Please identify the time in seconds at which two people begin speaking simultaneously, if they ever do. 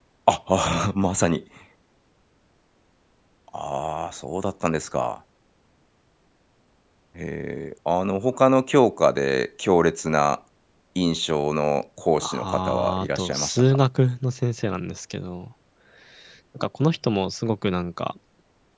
12 s

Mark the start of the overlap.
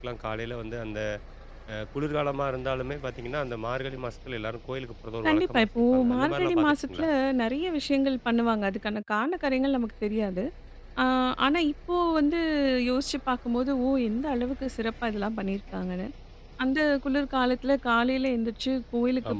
5 s

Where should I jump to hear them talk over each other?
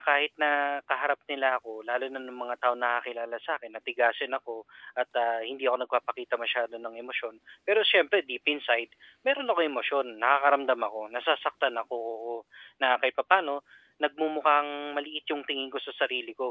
none

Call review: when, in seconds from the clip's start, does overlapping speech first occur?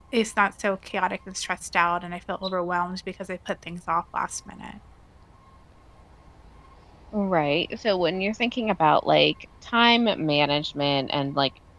none

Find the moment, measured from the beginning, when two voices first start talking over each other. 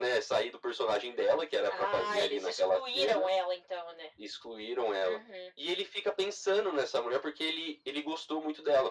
2 s

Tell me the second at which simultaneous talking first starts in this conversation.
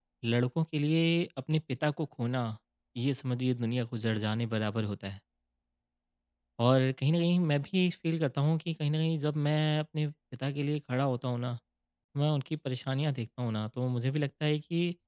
none

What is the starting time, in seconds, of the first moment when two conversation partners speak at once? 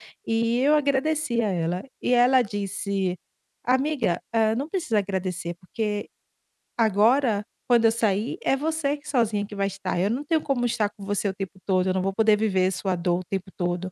none

